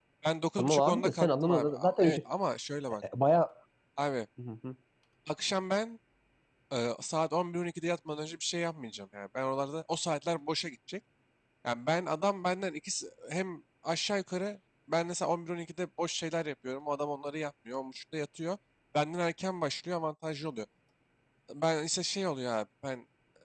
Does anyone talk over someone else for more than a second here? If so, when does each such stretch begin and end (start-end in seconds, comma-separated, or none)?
0.6-2.2